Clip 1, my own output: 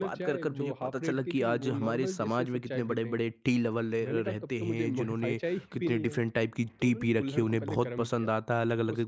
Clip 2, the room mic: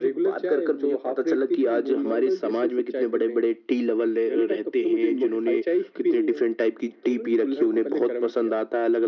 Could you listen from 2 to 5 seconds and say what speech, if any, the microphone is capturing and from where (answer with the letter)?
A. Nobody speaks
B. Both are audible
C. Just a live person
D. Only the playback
D